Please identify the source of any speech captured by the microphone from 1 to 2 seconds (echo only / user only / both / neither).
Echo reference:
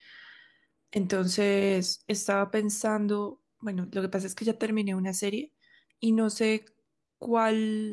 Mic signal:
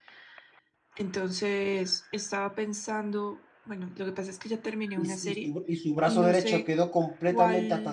echo only